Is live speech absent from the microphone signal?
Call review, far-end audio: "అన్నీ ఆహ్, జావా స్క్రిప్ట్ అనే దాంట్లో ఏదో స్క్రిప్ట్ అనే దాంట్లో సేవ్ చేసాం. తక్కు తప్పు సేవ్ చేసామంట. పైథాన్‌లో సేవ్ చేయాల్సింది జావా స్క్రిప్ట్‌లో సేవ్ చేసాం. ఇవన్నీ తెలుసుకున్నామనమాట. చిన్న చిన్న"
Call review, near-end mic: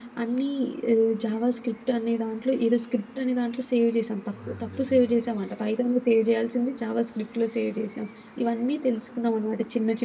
No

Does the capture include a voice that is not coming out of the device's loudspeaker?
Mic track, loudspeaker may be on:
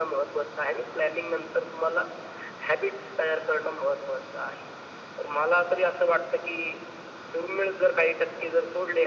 No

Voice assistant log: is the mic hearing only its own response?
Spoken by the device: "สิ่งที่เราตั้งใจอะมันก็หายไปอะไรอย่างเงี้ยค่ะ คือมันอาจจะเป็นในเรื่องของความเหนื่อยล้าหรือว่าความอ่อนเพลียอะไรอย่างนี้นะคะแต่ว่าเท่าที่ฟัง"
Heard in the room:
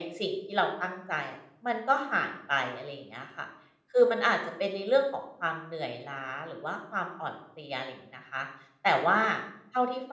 Yes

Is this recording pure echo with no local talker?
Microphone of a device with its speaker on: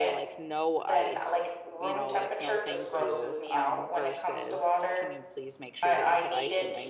No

